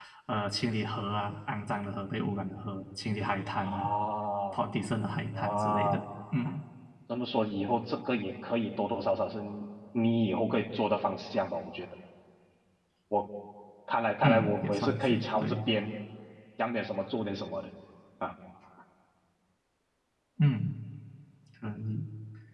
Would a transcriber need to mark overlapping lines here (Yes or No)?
Yes